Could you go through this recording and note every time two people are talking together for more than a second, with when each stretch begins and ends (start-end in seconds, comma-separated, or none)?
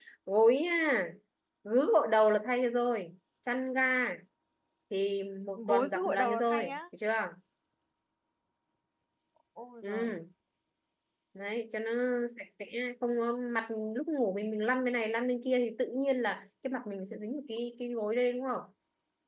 5.6-6.8